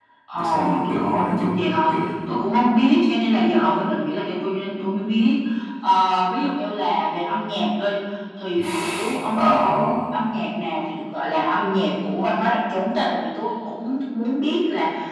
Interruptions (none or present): present